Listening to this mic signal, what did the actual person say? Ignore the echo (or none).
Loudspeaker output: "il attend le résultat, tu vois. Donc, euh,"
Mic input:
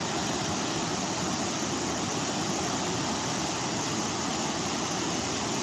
none